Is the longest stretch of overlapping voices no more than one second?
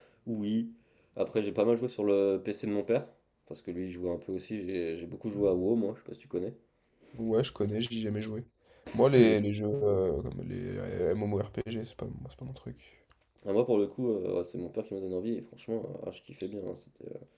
Yes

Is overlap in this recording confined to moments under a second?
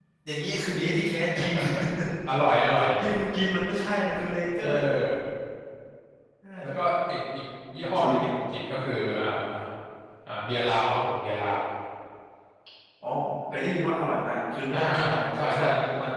No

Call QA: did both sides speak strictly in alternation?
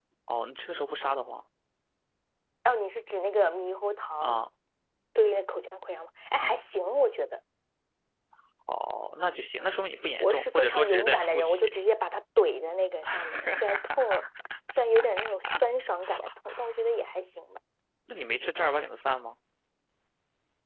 No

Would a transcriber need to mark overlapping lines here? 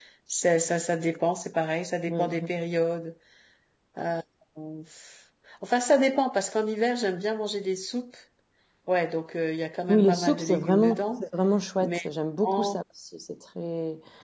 Yes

